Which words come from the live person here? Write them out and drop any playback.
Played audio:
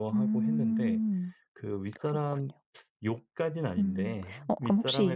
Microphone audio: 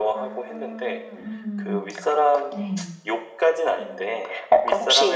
음. 네.

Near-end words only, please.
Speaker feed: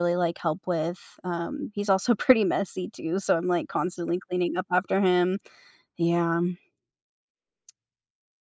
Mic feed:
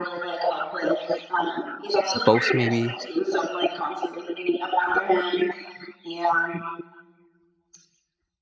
Both maybe?

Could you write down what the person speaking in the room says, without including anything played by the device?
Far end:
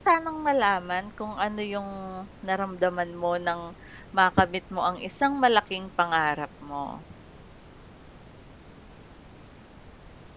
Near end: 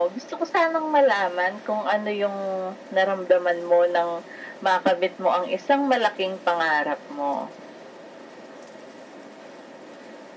none

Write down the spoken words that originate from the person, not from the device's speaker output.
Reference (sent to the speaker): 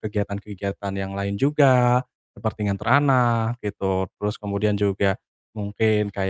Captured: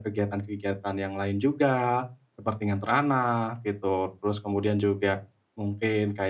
none

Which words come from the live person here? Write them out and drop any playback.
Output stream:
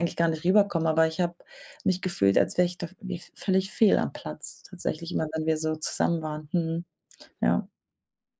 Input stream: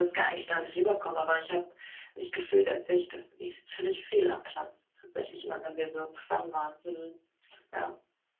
none

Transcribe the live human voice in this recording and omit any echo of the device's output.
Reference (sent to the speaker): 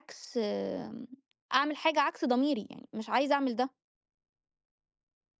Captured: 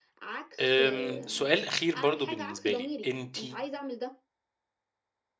آمم، سؤال أخير برضه بالنسبة لي، أنتِ

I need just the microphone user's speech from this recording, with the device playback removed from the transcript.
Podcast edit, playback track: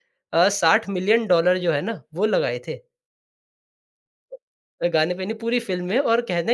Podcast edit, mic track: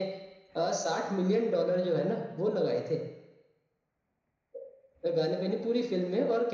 none

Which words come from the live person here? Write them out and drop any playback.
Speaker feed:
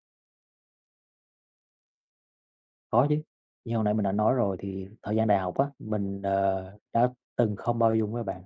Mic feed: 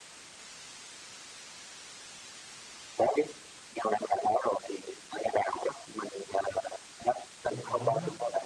những chuyện đó lớn đó.

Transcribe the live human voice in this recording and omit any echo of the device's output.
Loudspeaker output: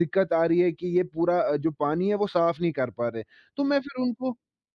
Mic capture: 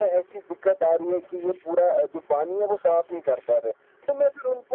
none

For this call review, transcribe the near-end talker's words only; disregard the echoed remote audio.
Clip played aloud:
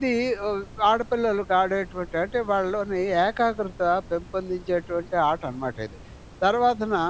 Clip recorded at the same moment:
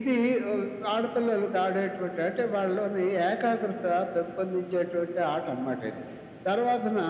none

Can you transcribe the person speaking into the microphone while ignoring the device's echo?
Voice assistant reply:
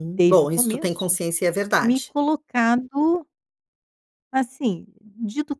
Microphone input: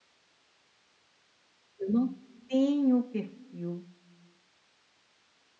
Eu não tenho perfil,

